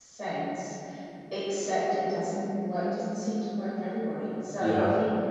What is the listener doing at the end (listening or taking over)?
listening